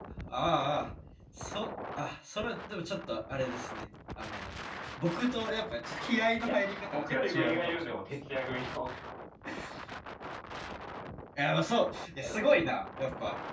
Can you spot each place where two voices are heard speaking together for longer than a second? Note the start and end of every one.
6.4-8.1

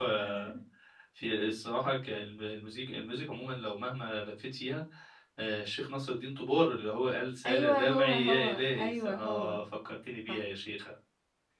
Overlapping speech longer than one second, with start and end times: 7.5-9.6

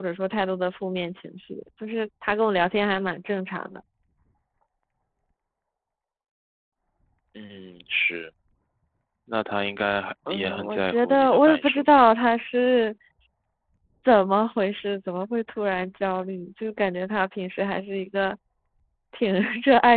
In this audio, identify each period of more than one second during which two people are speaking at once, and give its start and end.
10.3-11.8

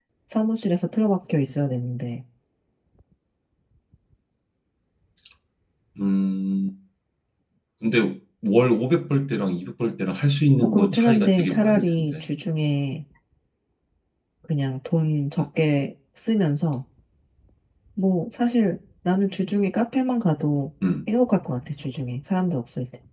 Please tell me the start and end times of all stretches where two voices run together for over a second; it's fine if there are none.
10.6-12.2

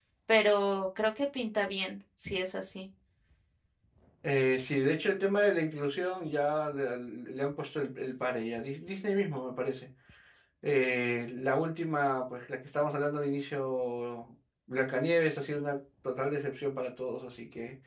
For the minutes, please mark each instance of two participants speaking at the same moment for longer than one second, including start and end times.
none

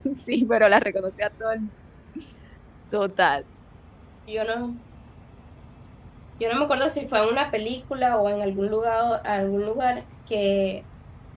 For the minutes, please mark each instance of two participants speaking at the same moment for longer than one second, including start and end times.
none

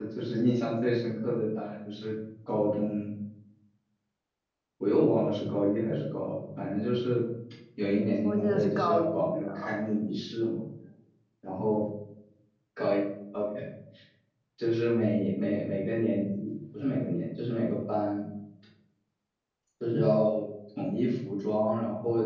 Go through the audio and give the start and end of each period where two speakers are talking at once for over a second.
8.2-9.8

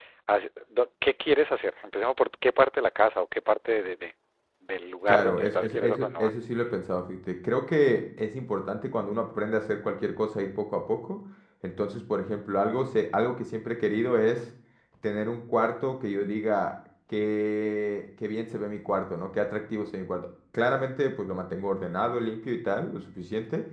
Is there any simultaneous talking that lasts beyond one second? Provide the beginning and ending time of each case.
5.1-6.3

